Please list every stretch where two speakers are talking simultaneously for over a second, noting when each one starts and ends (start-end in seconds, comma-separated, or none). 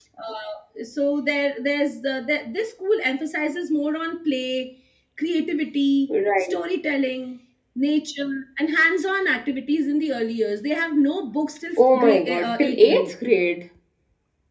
11.8-13.1